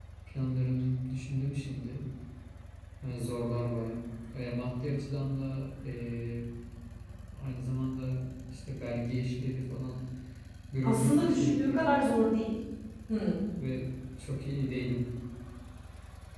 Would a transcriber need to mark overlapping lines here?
Yes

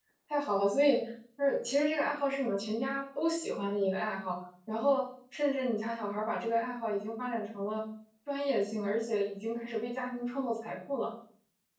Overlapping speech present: No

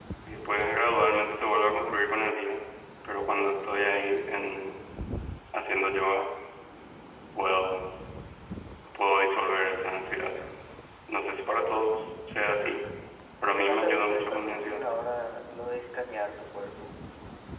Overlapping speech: Yes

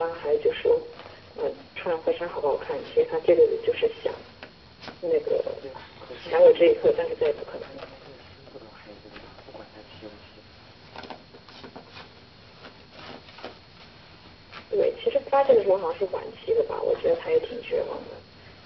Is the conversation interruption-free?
No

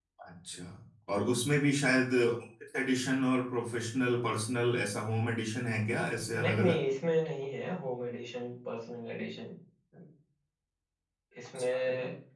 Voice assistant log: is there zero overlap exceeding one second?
Yes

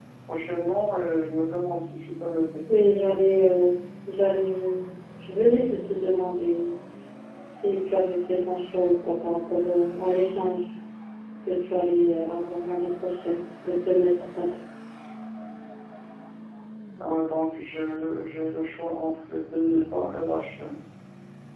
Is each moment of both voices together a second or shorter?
Yes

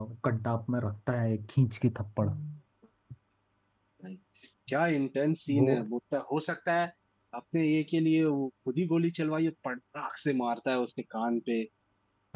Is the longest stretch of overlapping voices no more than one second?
Yes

